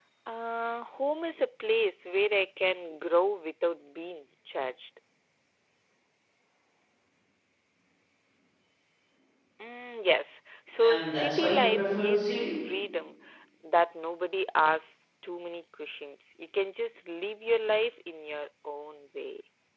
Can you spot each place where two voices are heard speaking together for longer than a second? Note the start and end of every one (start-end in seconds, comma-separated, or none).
10.8-12.5